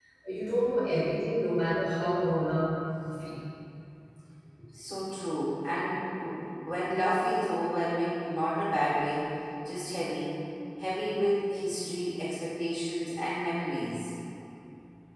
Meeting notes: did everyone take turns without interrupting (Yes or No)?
Yes